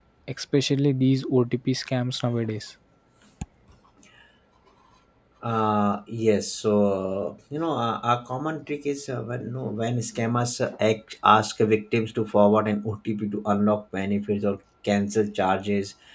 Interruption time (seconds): none

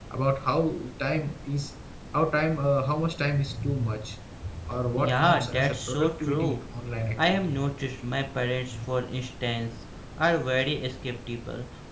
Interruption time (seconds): 5.0 s

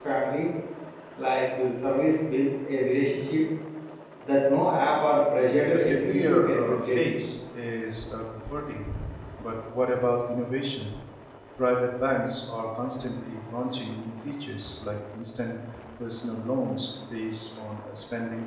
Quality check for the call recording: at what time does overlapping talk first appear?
5.7 s

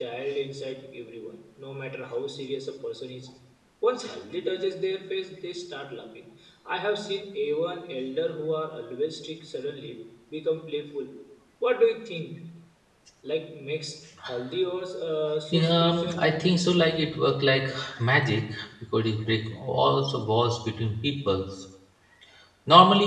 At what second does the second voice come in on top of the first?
15.5 s

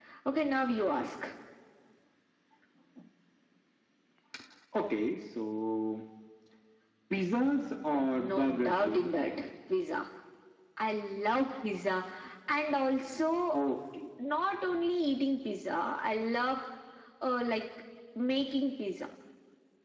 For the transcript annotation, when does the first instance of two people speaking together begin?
7.9 s

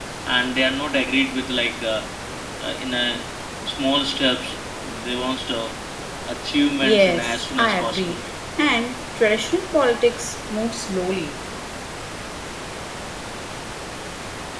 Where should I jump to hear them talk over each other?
6.8 s

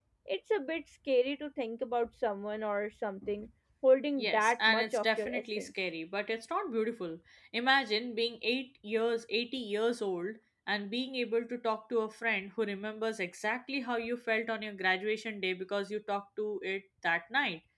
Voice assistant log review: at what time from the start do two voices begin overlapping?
4.2 s

